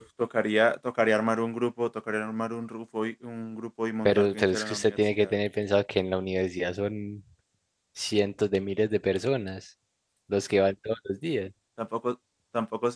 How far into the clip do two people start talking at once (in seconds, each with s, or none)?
4.0 s